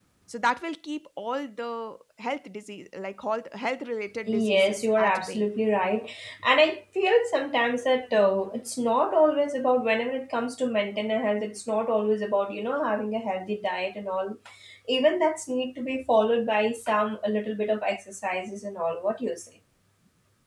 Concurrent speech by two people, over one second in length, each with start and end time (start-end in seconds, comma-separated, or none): 4.3-5.5